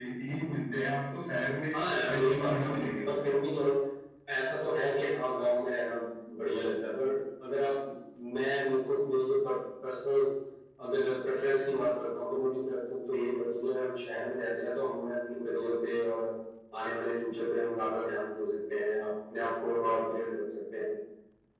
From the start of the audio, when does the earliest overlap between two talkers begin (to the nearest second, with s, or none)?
2 s